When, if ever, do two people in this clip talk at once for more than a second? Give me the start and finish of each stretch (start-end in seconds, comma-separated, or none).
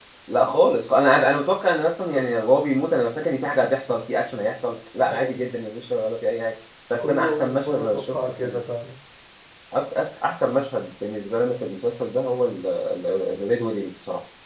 7.0-8.6